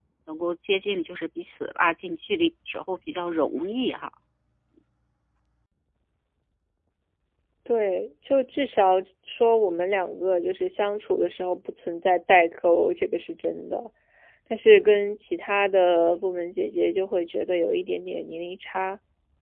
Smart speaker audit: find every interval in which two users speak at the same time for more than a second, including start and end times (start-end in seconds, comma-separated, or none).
none